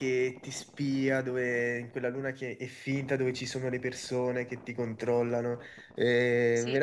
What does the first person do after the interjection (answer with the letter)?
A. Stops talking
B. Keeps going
B